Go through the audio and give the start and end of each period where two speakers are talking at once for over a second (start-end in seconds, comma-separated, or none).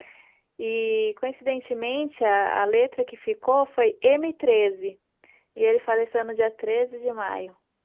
none